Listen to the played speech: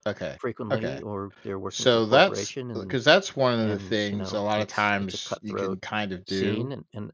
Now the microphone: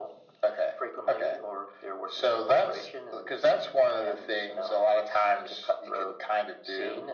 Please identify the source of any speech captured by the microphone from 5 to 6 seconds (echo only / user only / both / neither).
echo only